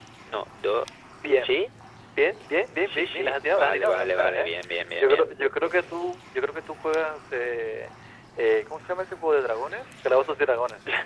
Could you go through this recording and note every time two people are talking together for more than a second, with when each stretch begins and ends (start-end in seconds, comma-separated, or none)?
2.9-4.5